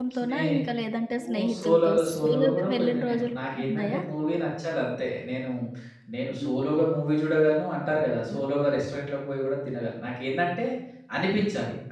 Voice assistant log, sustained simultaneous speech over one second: present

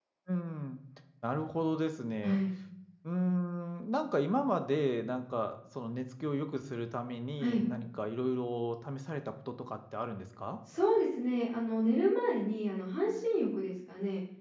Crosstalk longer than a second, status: none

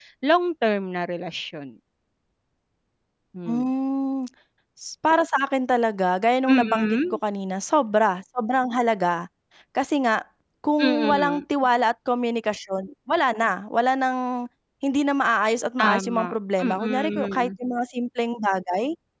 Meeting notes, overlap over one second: present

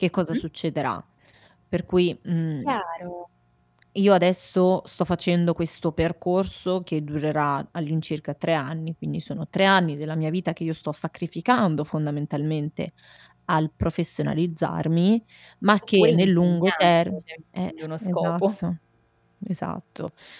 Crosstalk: present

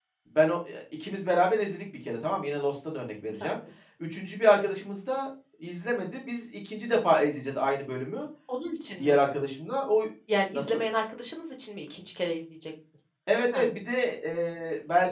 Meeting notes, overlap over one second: none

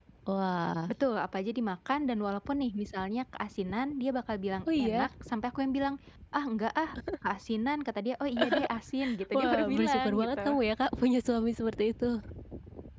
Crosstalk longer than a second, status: present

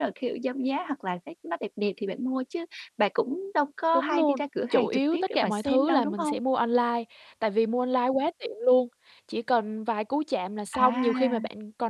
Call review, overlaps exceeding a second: present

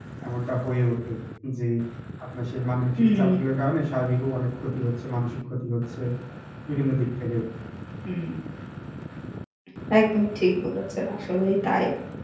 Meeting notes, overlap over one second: none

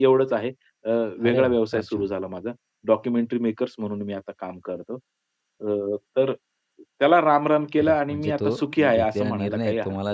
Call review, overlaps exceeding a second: present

